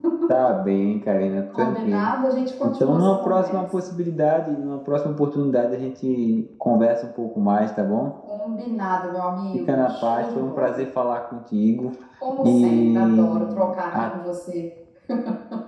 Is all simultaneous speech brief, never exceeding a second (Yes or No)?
No